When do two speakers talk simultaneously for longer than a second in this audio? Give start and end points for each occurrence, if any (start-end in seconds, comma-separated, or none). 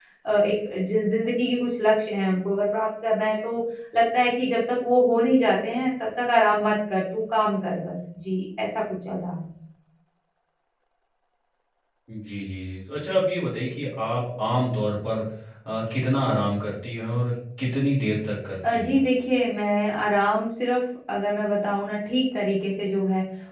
none